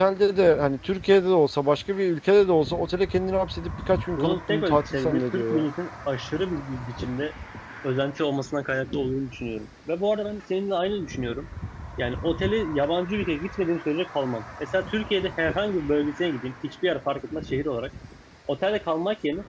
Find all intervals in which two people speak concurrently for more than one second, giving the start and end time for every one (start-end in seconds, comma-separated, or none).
4.2-5.7